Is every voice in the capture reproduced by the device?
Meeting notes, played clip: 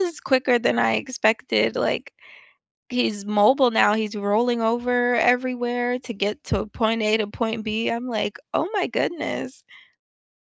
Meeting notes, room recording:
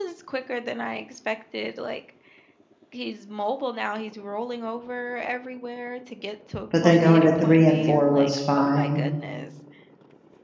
No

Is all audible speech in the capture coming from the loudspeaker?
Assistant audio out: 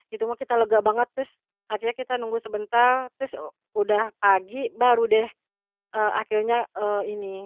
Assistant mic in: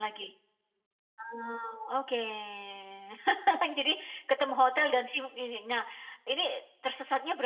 No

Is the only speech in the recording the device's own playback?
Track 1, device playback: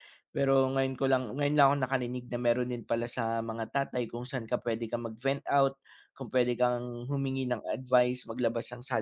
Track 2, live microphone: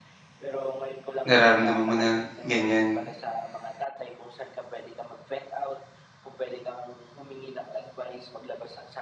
No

